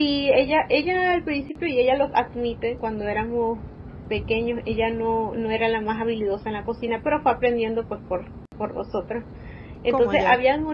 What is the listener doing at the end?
listening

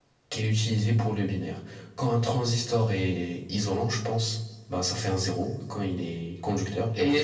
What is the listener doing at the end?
taking over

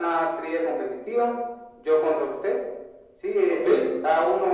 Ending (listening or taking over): listening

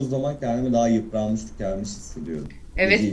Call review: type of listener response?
taking over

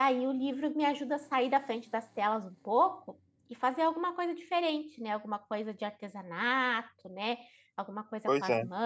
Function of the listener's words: listening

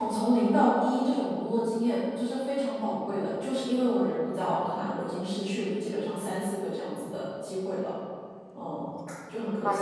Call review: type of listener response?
taking over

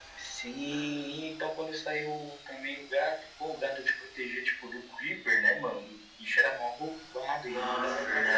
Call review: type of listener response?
taking over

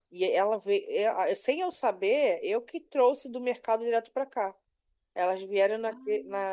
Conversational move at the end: listening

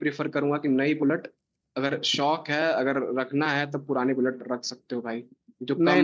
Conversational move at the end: taking over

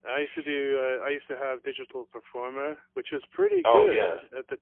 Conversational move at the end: listening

